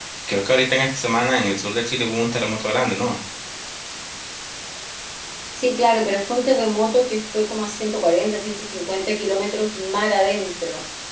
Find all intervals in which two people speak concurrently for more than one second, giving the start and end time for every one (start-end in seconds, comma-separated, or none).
none